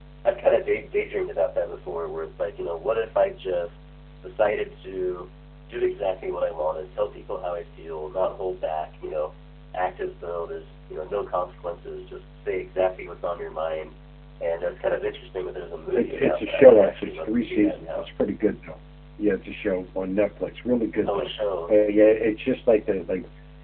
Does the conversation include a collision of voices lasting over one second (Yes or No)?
Yes